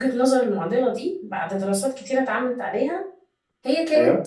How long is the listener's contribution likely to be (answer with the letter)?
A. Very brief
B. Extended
A